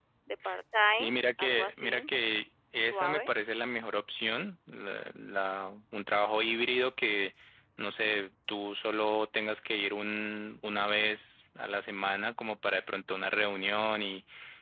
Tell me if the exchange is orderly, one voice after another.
No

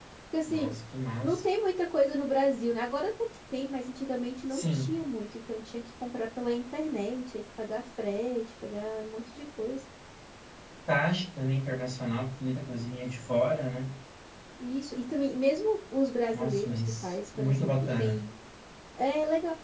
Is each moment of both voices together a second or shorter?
No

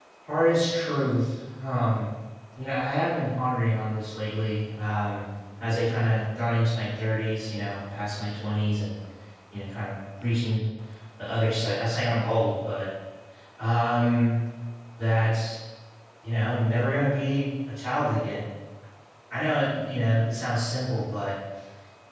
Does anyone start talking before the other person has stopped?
No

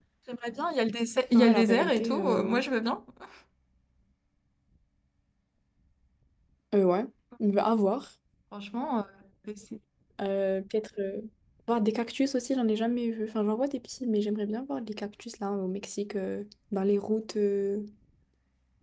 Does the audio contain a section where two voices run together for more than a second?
Yes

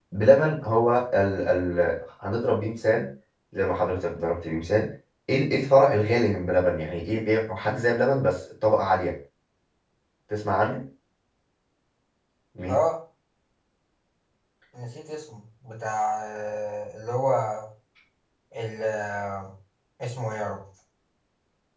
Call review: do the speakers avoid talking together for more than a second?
Yes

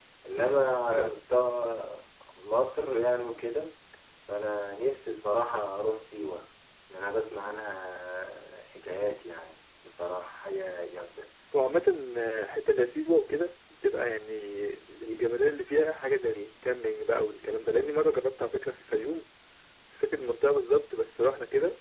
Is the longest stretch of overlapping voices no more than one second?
Yes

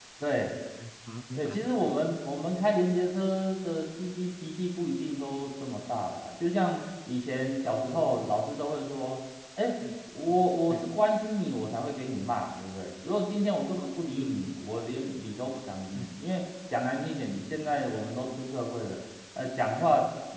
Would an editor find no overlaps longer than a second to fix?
Yes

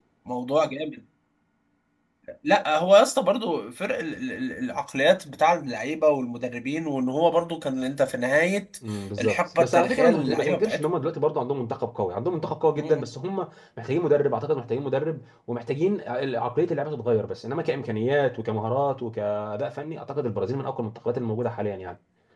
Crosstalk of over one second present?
Yes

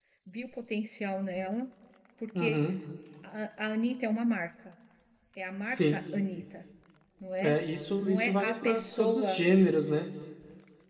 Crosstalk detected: Yes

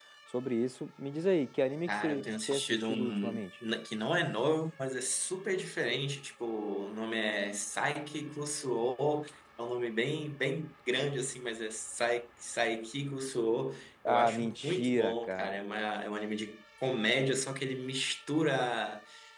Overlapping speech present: Yes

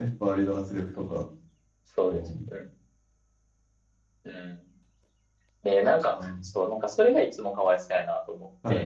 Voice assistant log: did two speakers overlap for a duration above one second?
No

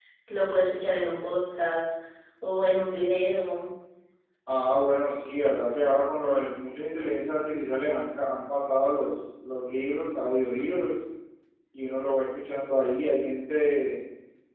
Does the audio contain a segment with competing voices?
No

